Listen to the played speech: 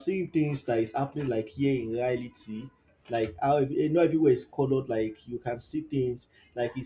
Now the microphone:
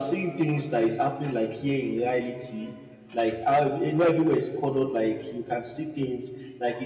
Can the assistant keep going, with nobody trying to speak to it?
Yes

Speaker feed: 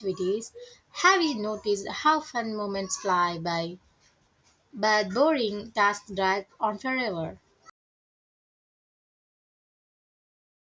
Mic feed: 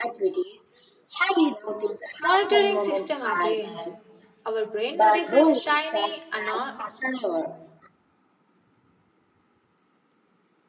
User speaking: Yes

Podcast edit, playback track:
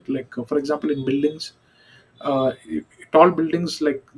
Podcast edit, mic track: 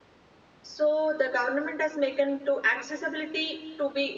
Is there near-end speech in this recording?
Yes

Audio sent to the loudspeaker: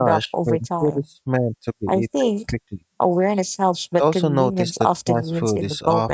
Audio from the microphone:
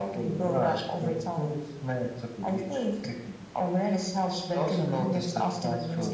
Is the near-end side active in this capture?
No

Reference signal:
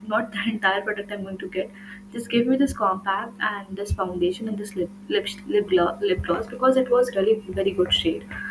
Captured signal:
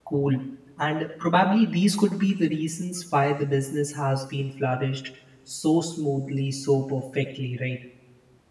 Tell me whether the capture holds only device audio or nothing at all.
No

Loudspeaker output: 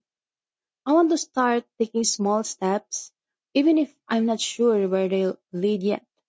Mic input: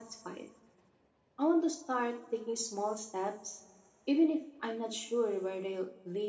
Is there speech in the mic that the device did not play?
No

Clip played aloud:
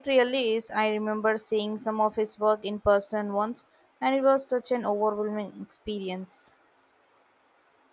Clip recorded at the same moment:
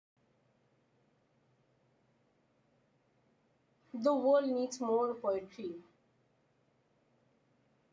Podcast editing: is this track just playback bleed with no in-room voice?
No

